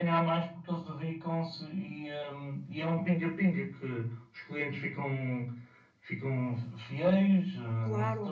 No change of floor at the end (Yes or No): No